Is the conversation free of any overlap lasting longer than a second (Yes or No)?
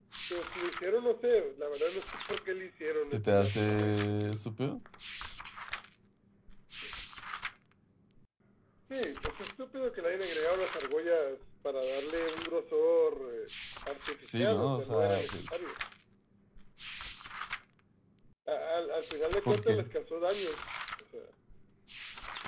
No